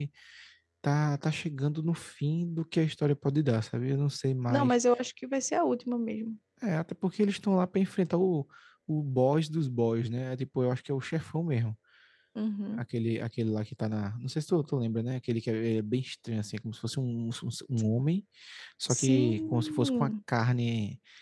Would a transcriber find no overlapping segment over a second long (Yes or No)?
No